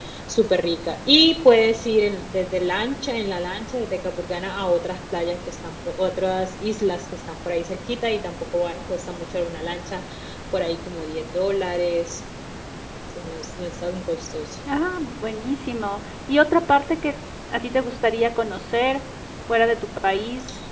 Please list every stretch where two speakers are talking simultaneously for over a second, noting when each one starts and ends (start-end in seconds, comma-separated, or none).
none